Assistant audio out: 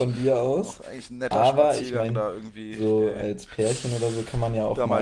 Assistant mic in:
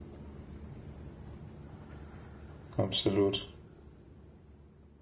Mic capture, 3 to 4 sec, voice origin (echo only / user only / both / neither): user only